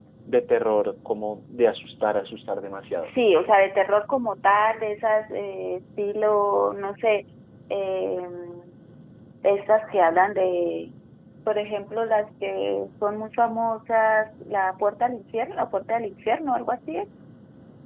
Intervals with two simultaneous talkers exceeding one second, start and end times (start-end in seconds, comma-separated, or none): none